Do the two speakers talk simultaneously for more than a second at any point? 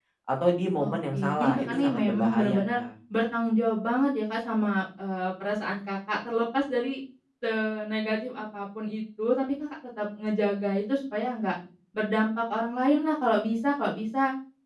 Yes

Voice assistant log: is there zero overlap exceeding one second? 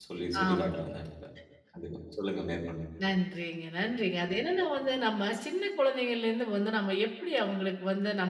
Yes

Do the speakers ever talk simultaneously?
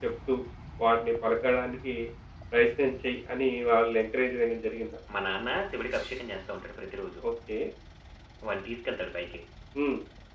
No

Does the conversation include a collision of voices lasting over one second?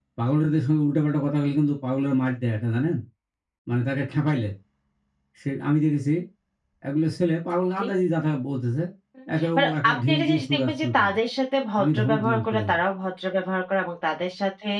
Yes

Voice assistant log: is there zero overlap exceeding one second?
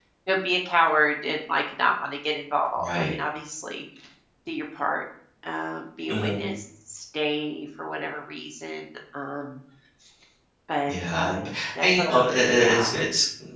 No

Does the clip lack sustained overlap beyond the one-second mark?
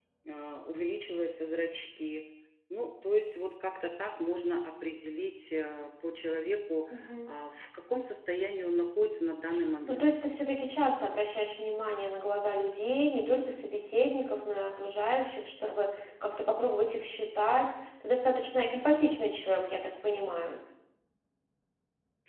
Yes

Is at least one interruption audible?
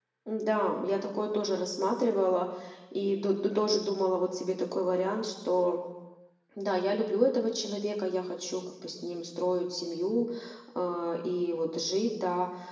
No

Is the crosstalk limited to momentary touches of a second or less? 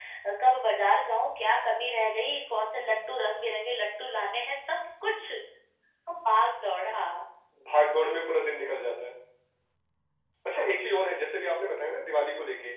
Yes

